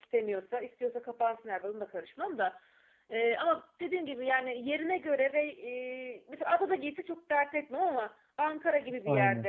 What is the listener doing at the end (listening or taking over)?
listening